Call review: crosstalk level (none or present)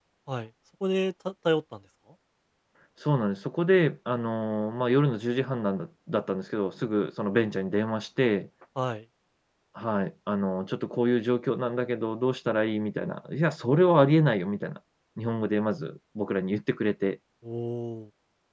none